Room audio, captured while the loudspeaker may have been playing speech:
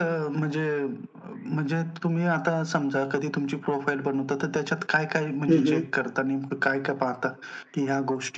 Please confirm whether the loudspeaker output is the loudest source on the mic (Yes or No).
No